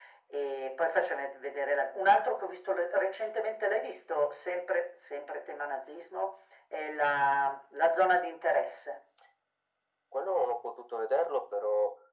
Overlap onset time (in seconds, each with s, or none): none